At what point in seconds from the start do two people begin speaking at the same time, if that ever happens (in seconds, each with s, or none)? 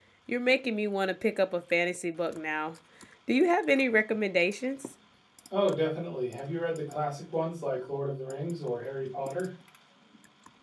none